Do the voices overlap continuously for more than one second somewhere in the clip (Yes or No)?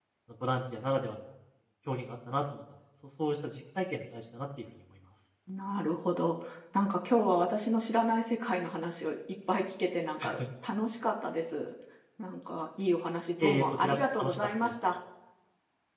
Yes